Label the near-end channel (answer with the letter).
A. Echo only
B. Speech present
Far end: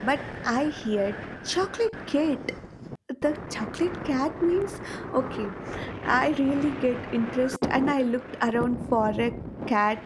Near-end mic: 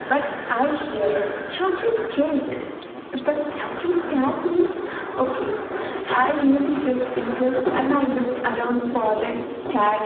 A